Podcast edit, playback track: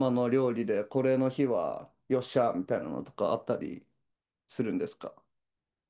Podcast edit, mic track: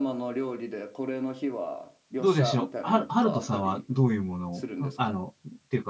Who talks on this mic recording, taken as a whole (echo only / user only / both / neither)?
both